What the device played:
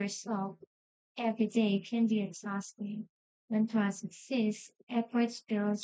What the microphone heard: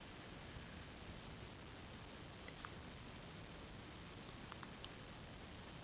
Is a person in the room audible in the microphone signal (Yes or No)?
No